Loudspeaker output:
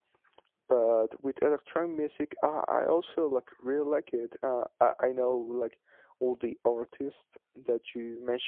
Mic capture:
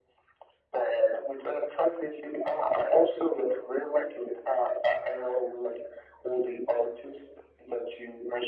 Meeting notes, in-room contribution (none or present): none